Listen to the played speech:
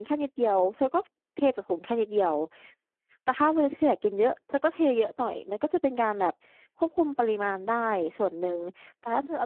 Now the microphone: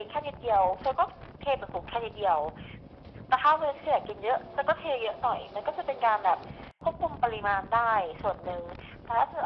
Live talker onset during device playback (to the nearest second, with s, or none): none